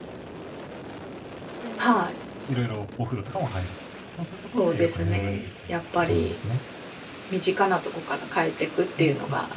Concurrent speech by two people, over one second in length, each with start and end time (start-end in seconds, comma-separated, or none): 4.6-6.4